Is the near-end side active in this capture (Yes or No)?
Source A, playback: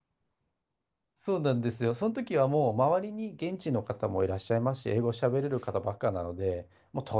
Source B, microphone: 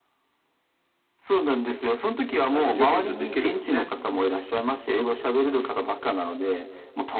Yes